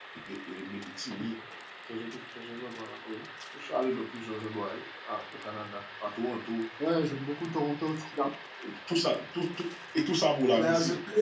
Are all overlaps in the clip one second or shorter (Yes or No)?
Yes